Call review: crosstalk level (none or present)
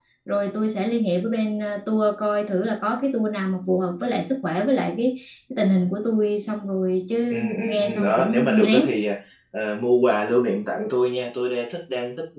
present